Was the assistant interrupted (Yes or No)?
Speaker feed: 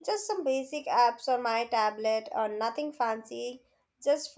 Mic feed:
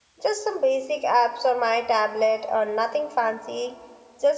No